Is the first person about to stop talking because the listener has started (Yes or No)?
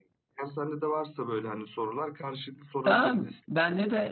Yes